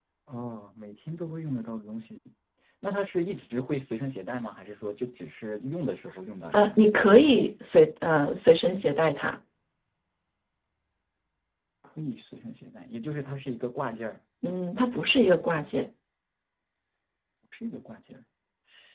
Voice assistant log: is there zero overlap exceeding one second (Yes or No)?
Yes